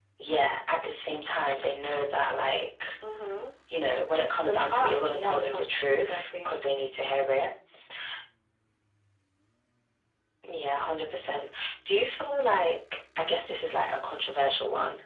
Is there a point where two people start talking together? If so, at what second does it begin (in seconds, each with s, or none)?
4.4 s